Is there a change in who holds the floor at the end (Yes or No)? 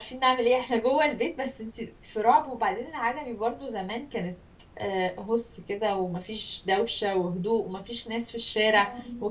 No